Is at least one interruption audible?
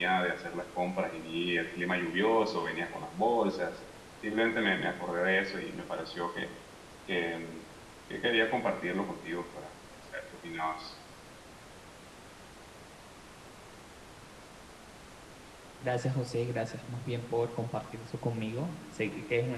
No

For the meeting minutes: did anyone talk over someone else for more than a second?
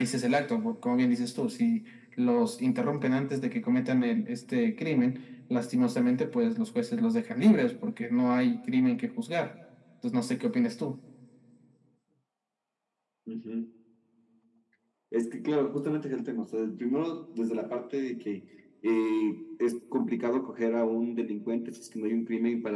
No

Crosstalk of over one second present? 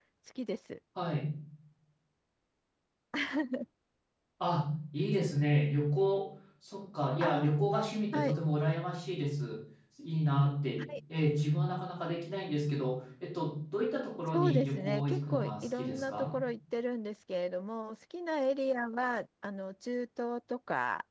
Yes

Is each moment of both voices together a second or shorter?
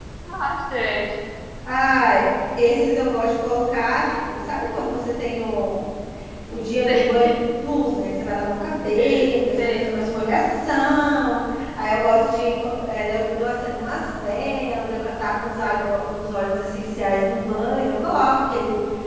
Yes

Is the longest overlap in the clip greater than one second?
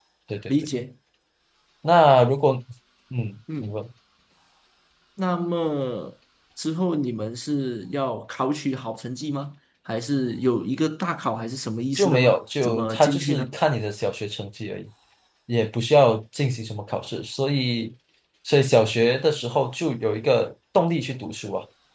Yes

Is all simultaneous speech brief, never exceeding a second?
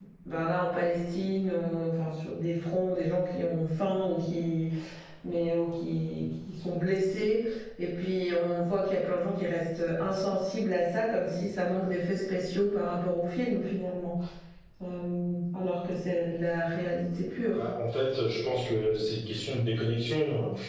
Yes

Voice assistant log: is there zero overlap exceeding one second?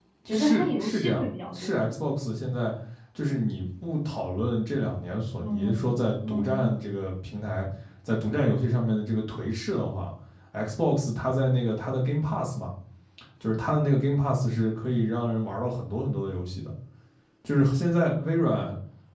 No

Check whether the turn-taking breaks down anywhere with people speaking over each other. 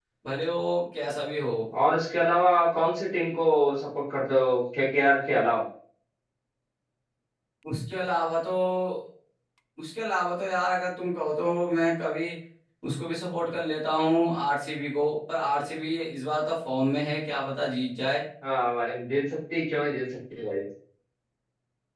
No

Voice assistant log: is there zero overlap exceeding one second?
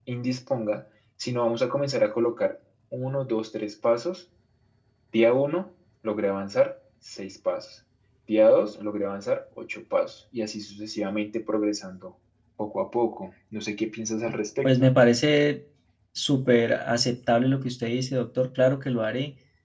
Yes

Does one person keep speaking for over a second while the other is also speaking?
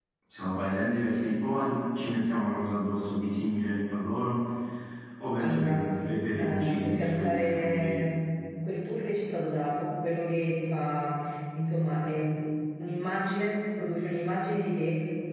Yes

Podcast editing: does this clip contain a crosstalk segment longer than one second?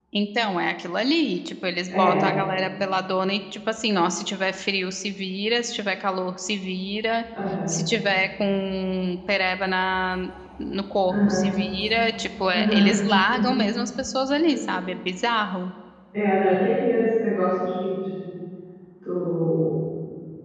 No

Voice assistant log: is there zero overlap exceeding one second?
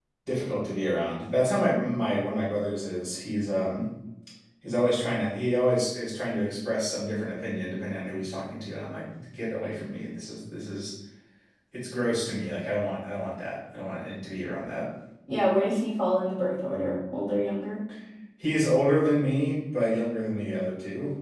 Yes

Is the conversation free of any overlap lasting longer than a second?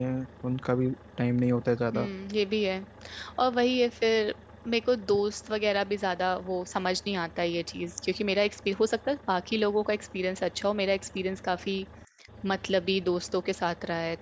Yes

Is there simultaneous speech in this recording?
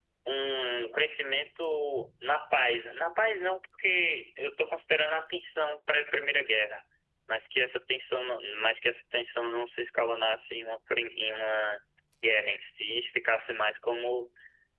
No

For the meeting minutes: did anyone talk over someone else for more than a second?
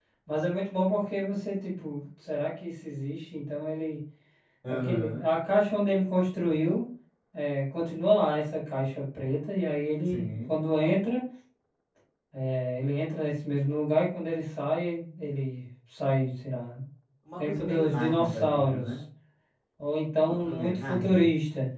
Yes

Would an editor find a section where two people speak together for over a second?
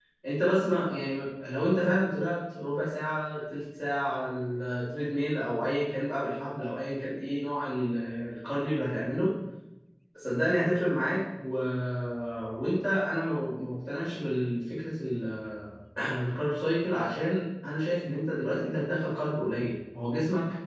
No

